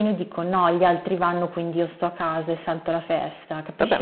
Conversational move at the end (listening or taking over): taking over